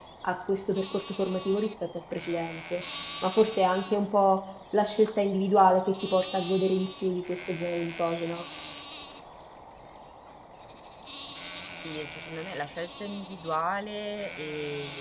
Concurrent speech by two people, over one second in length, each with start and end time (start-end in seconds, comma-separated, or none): none